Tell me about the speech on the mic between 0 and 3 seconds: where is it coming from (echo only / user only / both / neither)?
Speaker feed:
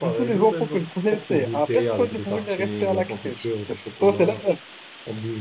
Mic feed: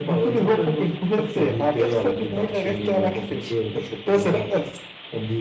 echo only